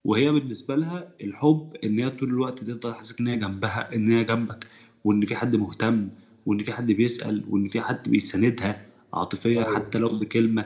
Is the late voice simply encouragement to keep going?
Yes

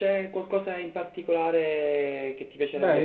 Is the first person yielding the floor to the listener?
Yes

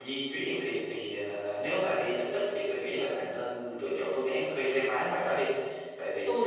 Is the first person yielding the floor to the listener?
Yes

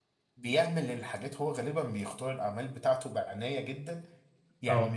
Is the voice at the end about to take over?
No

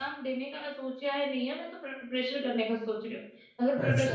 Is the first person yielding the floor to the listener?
No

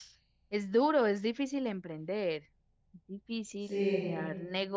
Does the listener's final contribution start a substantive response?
No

